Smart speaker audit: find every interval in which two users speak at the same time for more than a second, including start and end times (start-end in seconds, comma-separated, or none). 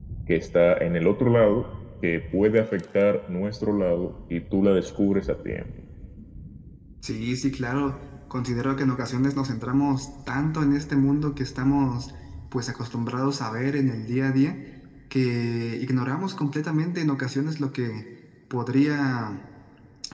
none